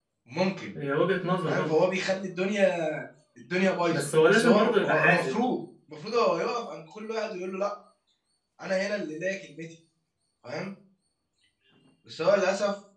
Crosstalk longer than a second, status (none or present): present